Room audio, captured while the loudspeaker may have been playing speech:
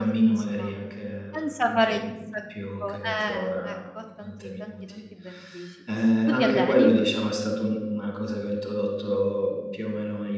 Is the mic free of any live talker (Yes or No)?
No